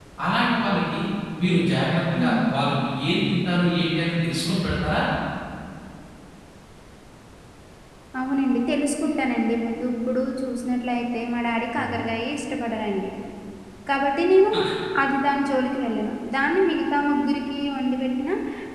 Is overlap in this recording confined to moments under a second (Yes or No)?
Yes